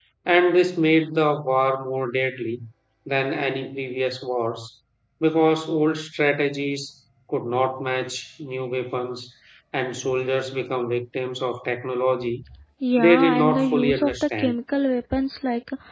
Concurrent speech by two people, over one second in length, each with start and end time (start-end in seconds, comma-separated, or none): 13.0-14.6